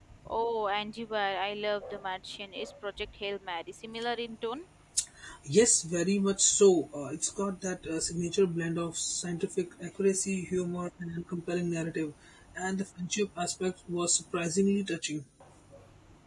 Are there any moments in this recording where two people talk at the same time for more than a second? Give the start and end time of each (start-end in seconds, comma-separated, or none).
none